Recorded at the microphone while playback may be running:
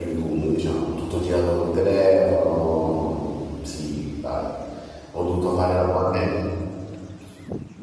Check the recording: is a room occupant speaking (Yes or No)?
Yes